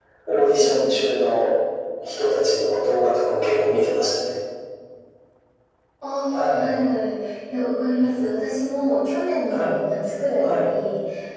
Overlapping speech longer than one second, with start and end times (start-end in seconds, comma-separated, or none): none